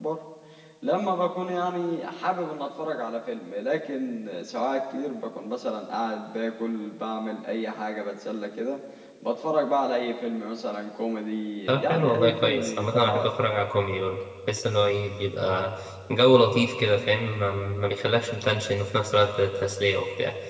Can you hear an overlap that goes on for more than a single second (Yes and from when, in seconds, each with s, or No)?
Yes, from 11.7 s